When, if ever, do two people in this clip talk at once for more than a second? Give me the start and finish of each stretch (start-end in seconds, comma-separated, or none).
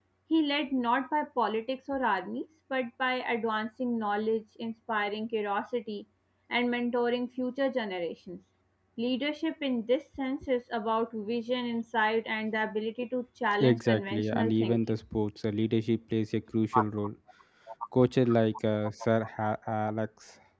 13.6-15.0